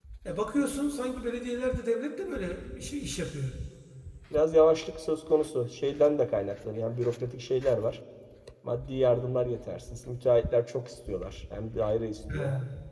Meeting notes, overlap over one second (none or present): none